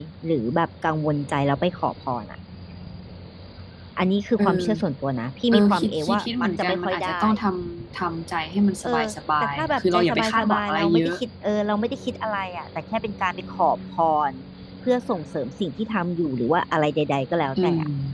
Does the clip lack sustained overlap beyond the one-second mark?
No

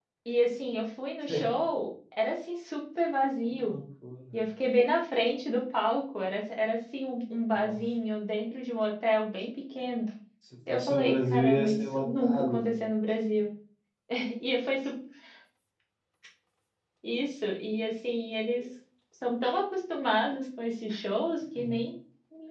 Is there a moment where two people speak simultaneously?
Yes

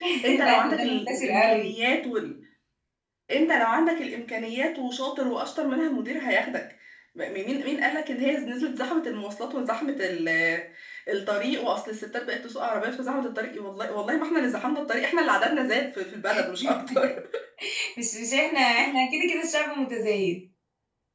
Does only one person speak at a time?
No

